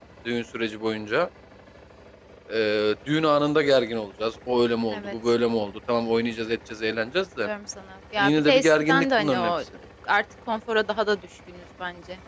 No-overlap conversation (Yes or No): No